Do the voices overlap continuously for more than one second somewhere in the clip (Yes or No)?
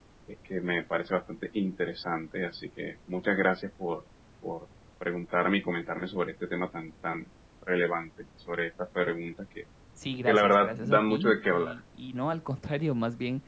Yes